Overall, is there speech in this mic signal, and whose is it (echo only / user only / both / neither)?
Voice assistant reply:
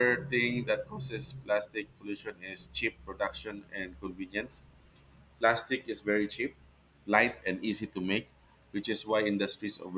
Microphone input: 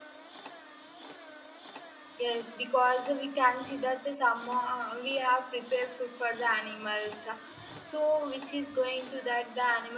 user only